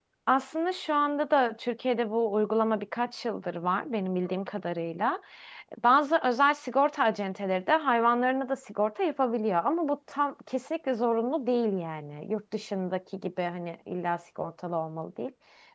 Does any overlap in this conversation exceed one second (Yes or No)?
No